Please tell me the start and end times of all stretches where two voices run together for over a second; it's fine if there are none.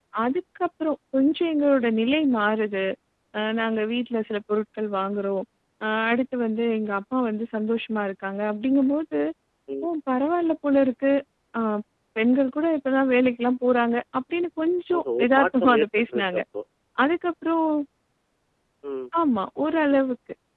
15.0-16.4

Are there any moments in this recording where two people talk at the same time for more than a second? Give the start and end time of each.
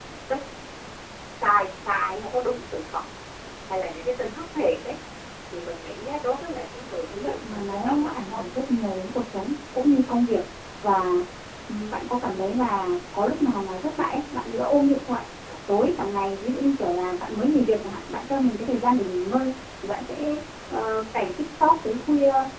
7.1-8.4

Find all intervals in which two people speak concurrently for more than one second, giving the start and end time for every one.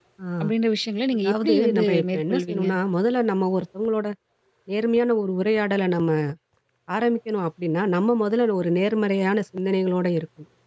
1.1-2.7

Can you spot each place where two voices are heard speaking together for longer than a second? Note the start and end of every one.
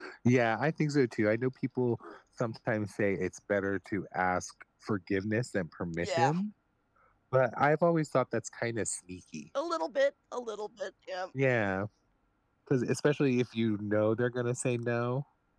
none

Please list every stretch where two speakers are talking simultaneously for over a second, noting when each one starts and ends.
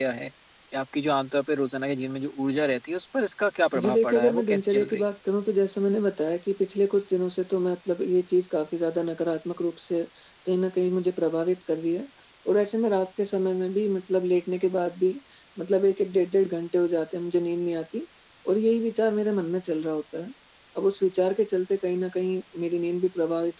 3.8-5.1

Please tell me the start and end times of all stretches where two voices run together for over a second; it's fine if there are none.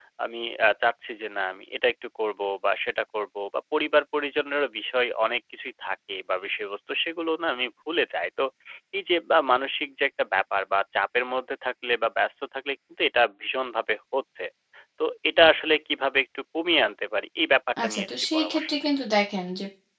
17.8-19.1

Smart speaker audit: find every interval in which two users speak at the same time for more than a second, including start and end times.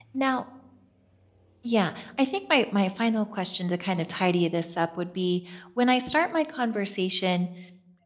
none

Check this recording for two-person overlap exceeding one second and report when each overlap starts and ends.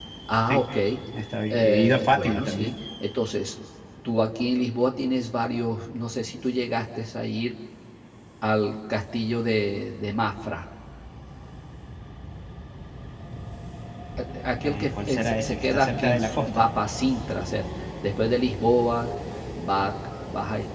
1.5-2.7, 14.6-16.6

